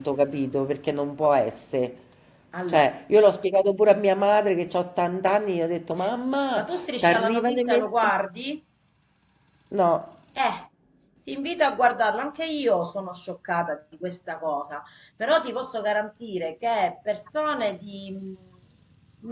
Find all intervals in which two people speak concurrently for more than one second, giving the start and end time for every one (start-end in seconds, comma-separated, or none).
6.6-8.1